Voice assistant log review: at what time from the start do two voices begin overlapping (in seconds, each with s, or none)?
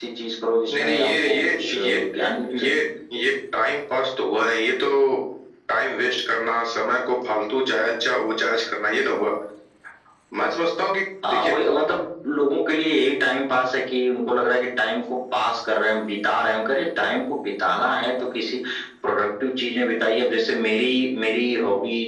0.7 s